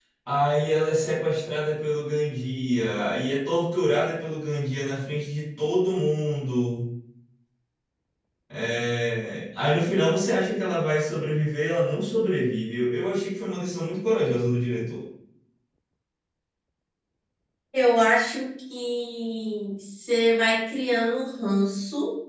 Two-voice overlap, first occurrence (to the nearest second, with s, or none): none